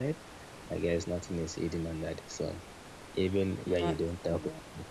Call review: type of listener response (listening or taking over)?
listening